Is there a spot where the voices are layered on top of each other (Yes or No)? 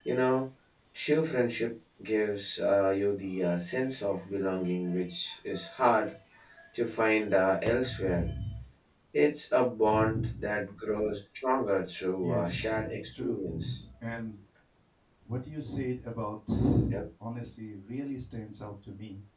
Yes